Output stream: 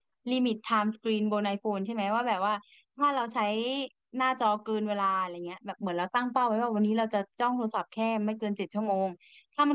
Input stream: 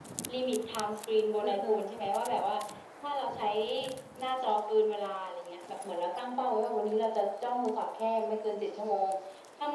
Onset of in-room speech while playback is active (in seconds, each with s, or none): 1.4 s